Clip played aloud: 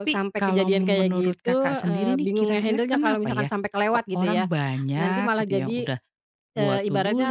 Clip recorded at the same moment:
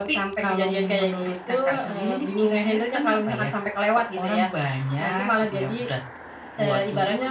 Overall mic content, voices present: echo only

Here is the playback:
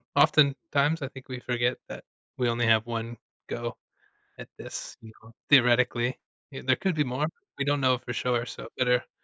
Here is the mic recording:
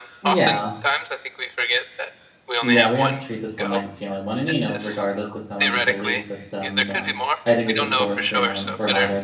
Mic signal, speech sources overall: both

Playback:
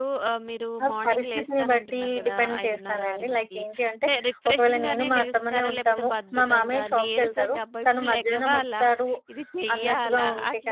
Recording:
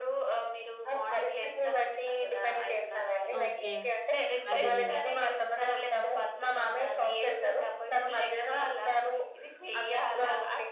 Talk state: both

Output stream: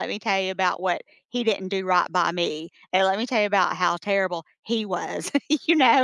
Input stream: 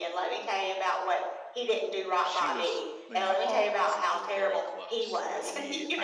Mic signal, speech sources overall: both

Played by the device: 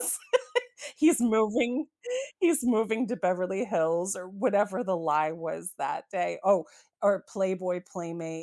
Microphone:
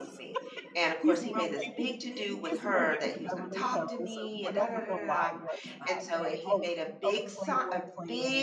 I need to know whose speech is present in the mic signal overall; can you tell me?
both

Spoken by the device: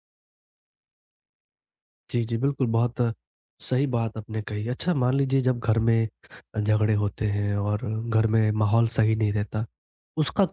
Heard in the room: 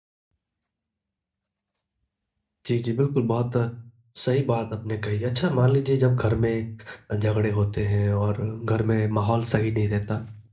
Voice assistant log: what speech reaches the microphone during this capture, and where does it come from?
echo only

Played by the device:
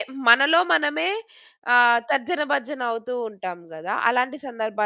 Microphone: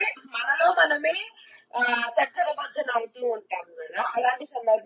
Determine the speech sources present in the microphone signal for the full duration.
echo only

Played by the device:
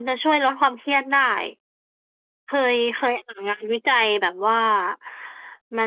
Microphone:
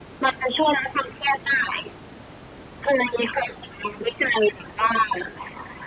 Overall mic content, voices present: echo only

